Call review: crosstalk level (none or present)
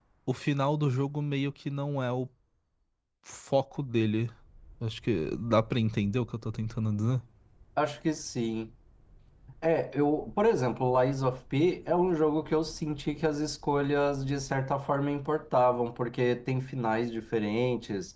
none